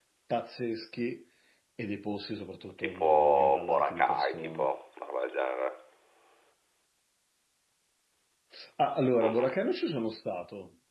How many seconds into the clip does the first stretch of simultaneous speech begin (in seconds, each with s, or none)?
2.8 s